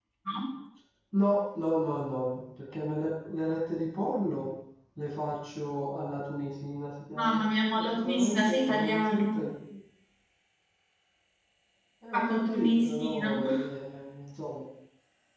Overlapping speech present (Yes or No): Yes